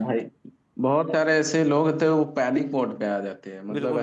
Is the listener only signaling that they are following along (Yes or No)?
No